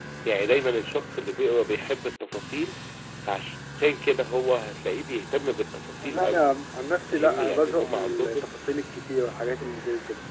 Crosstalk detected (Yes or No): Yes